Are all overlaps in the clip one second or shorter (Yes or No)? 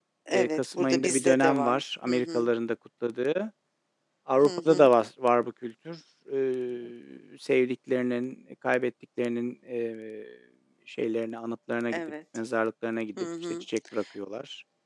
No